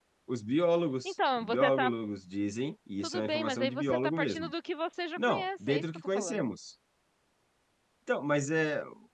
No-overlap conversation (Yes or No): No